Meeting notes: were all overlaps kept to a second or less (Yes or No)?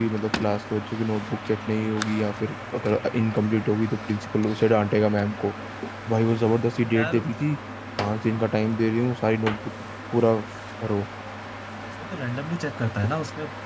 Yes